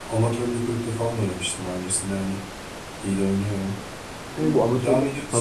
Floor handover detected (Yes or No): Yes